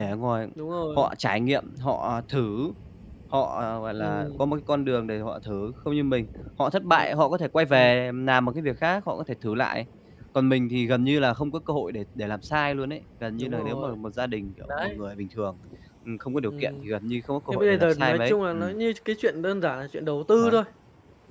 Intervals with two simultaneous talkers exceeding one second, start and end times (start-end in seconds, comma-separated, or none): 17.5-18.8